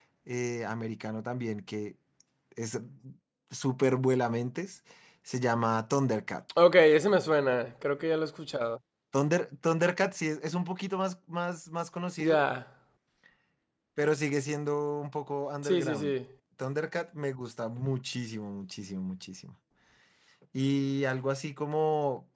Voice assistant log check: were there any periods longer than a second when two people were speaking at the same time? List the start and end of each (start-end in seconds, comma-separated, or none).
none